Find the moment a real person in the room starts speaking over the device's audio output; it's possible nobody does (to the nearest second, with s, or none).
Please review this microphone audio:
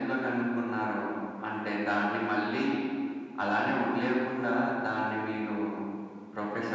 none